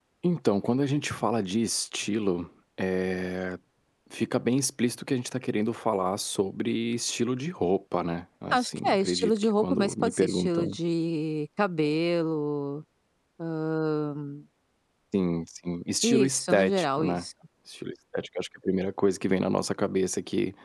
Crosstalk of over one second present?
Yes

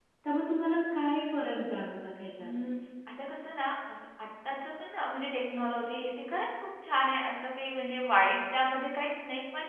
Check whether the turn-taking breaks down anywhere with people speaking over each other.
No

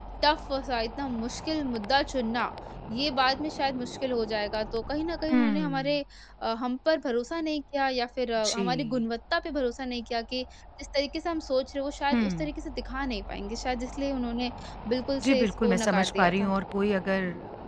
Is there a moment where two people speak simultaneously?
Yes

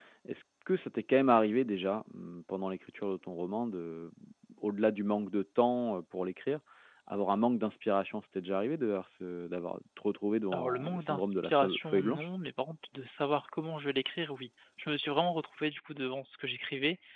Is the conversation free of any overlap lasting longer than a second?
No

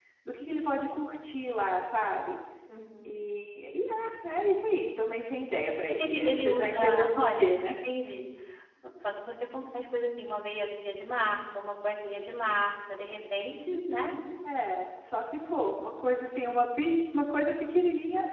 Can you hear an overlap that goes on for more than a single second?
Yes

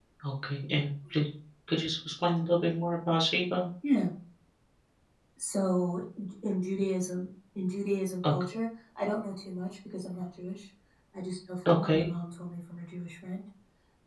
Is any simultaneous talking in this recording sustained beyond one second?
No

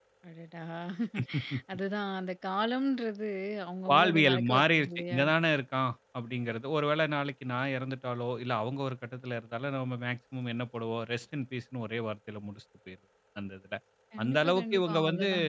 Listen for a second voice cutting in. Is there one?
Yes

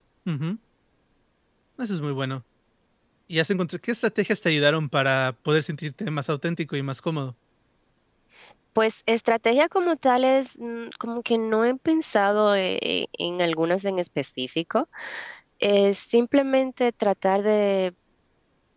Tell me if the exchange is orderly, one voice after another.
Yes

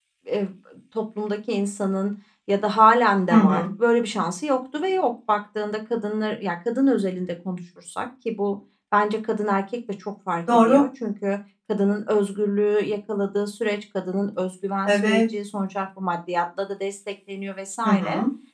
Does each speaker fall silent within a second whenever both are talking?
Yes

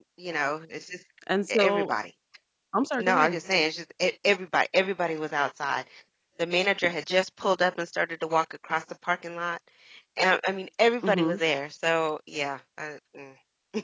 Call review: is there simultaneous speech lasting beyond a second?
No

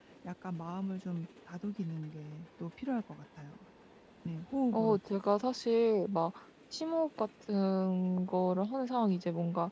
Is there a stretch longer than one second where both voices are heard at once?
No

